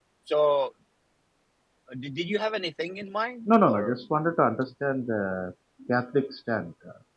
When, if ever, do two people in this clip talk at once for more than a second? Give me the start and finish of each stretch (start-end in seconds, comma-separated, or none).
none